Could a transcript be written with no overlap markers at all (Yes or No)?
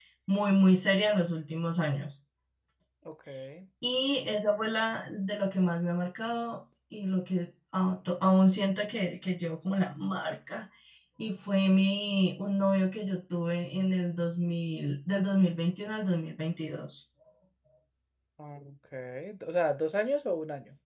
Yes